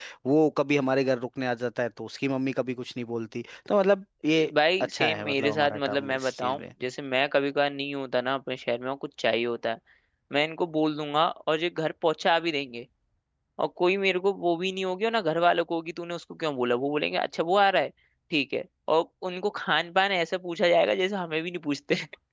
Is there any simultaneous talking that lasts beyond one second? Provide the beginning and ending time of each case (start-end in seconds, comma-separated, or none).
4.8-6.6